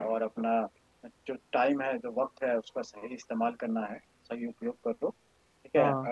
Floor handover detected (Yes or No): No